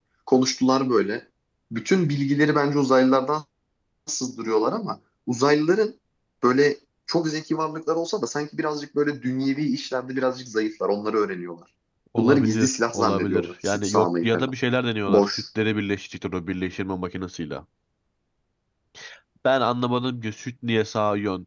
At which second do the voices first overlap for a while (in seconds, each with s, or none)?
12.2 s